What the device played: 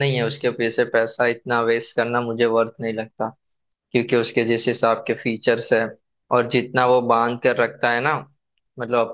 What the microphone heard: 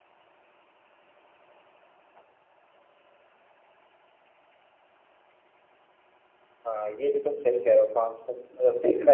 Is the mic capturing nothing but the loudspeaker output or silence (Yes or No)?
No